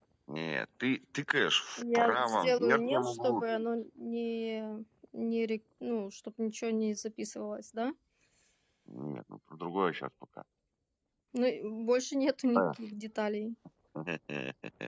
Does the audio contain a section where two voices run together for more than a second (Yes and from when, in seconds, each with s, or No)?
Yes, from 1.8 s